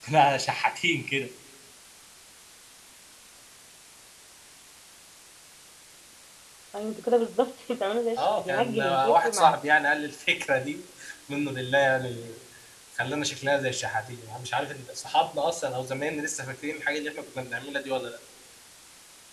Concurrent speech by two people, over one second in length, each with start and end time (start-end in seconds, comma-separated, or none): 8.2-9.6